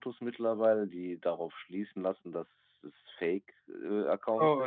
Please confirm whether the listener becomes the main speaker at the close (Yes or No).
Yes